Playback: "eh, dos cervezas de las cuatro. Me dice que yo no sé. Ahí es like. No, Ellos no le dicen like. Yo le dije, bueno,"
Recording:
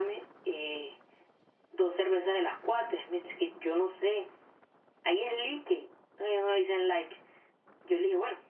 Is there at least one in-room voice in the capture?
No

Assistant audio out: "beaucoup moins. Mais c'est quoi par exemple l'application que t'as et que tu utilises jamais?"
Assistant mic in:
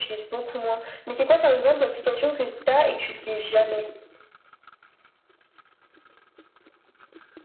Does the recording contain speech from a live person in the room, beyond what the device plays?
No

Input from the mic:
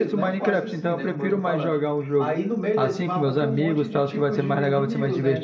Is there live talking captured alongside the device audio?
Yes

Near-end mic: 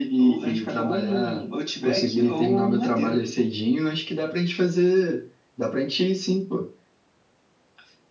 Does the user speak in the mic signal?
No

